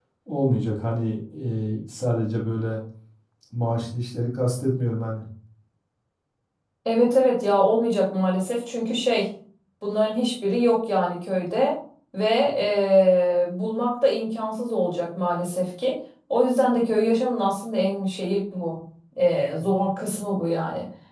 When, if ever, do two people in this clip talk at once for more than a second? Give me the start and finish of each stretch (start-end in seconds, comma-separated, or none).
none